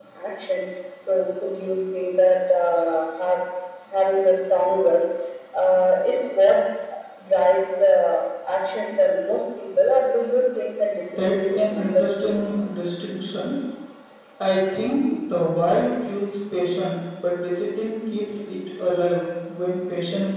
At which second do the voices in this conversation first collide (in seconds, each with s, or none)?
11.2 s